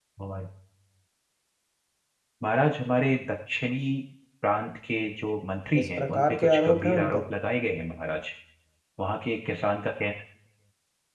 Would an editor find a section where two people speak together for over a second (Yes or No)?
Yes